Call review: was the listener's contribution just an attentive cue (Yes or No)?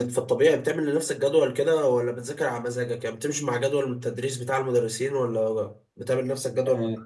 No